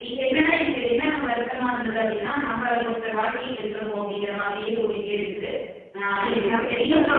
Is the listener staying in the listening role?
No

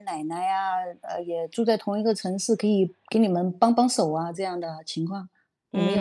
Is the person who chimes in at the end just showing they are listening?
No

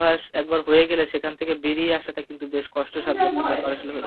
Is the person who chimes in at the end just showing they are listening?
No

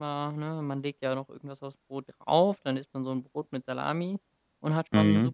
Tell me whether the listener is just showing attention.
Yes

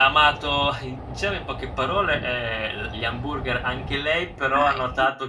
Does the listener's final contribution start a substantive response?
No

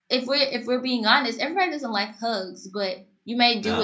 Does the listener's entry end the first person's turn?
No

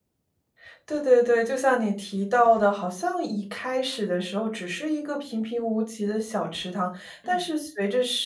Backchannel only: Yes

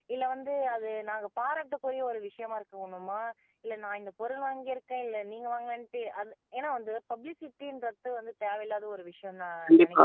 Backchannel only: No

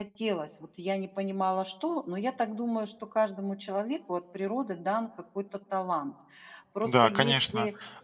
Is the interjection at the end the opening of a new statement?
Yes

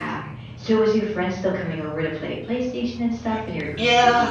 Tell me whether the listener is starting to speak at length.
Yes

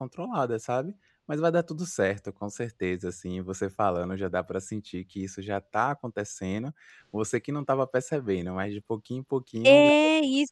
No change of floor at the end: No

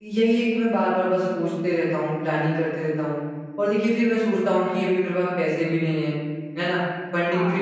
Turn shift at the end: No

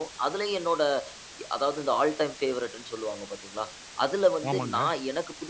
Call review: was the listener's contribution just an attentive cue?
Yes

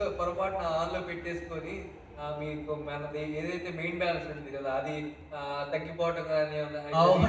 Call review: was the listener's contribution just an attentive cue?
No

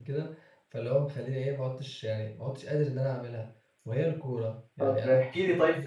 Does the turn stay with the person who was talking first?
No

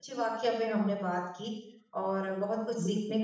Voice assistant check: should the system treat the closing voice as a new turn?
No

